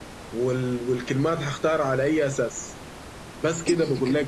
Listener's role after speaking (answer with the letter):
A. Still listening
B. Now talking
A